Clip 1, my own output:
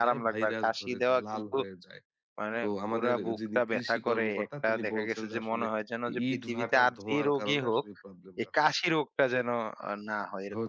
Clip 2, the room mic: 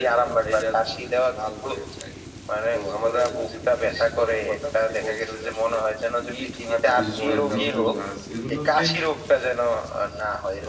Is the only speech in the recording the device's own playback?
No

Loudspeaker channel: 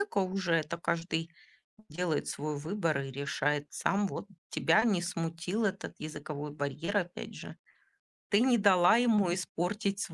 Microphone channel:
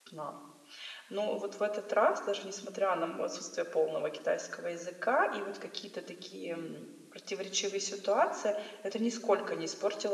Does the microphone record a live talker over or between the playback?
Yes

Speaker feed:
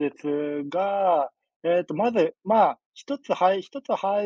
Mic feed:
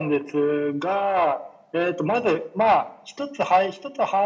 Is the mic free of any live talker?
Yes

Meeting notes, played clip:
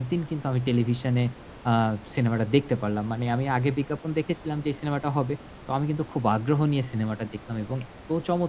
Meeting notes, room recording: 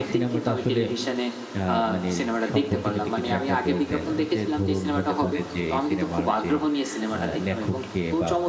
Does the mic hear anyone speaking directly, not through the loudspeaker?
Yes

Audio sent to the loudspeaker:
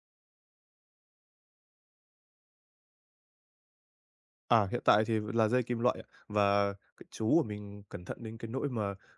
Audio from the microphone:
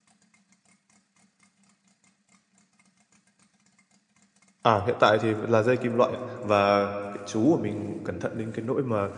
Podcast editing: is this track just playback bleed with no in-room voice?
Yes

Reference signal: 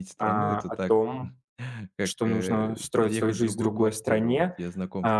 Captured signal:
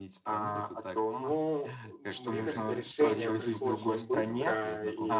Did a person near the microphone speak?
Yes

